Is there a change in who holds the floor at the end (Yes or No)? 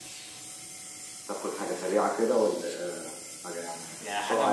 Yes